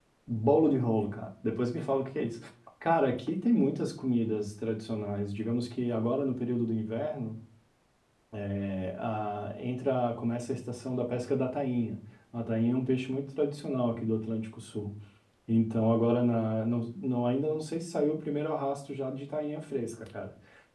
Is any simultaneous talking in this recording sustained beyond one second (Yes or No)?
No